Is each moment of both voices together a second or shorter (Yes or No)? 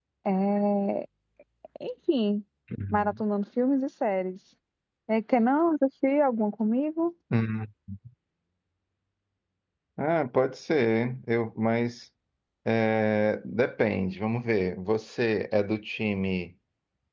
Yes